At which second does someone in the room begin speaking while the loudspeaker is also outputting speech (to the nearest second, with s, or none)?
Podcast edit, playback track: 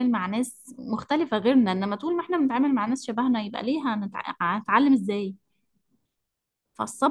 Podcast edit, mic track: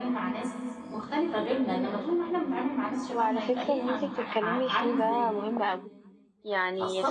3 s